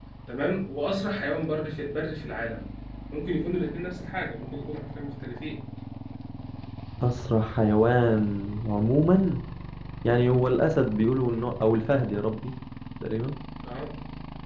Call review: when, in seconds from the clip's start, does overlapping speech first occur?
none

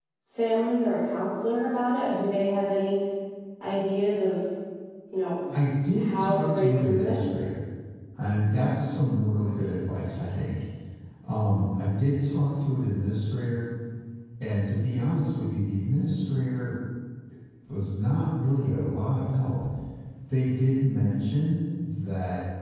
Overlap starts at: 6.0 s

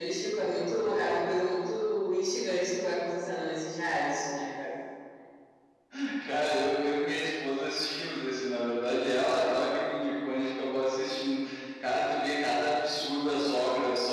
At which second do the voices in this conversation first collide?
none

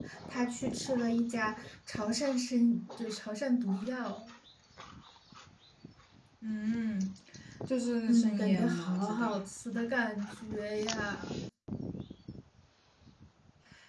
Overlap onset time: 8.1 s

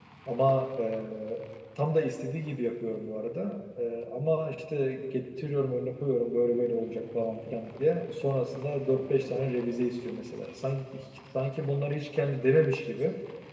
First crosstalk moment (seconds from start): none

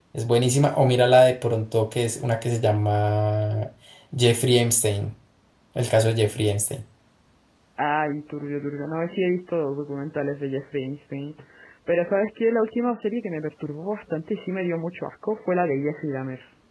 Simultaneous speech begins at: none

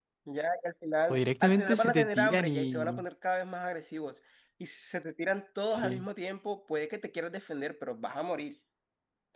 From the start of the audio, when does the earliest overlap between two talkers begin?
1.1 s

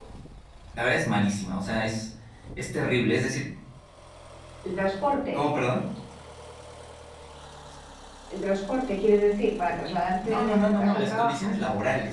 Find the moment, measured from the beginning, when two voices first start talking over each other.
10.2 s

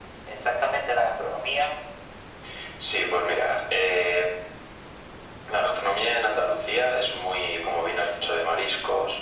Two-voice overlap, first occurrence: none

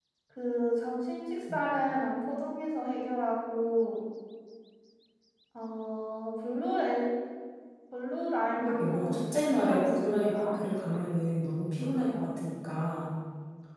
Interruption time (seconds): 8.5 s

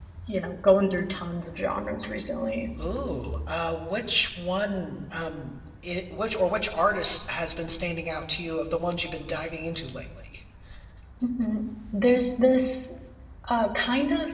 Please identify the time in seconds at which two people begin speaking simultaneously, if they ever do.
none

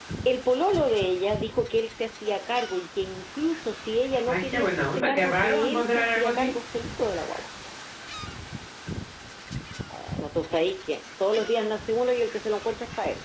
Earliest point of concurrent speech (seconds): 4.2 s

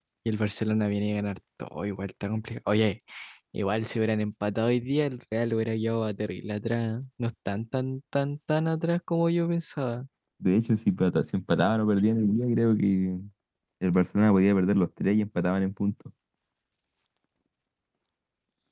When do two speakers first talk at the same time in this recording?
none

